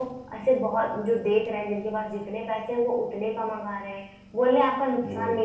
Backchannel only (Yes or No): Yes